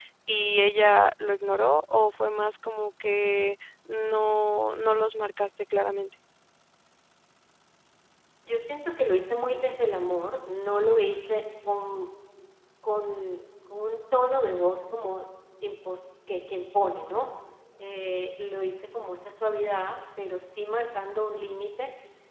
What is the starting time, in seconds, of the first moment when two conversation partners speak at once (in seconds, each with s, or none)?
none